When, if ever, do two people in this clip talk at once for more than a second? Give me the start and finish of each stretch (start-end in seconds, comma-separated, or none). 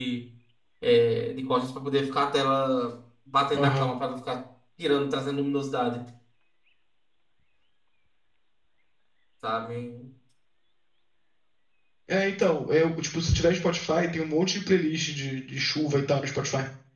none